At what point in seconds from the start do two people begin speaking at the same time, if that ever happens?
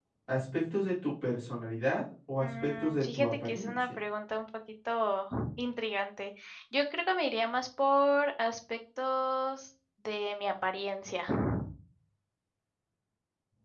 2.4 s

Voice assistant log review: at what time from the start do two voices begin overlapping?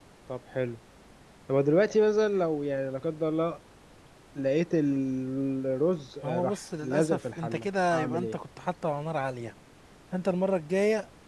6.2 s

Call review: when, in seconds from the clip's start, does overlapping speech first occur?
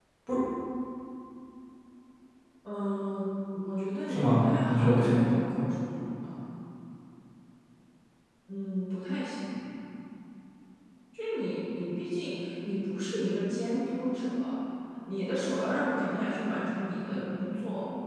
4.1 s

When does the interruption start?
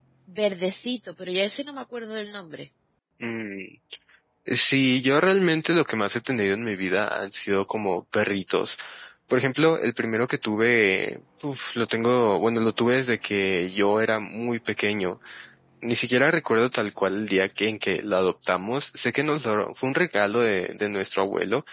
none

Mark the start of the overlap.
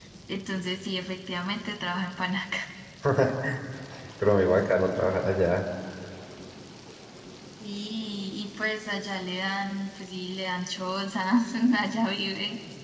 none

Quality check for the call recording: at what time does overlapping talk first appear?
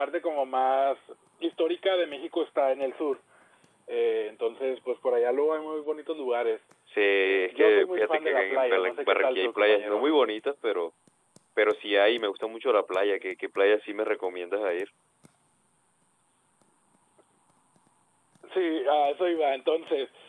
7.2 s

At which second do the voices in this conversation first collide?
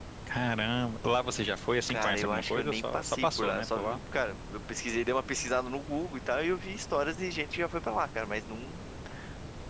1.9 s

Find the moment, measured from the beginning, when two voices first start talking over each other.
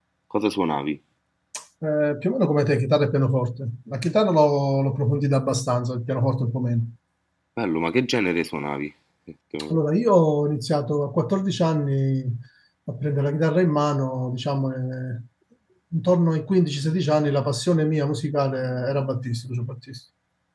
none

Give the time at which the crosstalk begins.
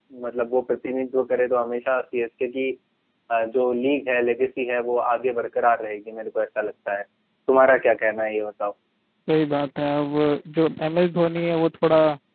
none

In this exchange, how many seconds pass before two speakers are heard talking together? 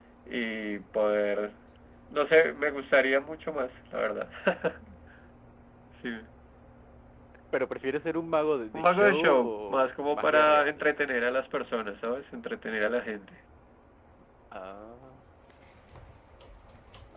8.7 s

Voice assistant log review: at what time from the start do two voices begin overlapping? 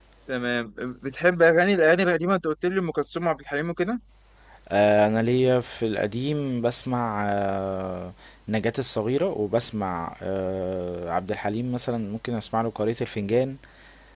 none

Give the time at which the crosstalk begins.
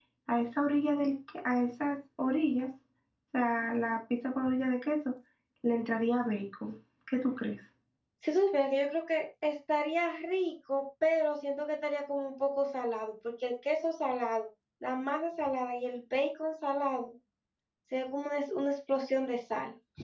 none

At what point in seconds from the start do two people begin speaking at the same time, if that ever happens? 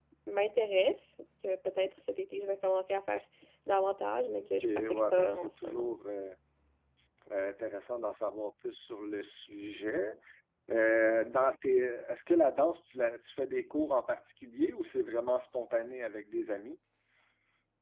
4.4 s

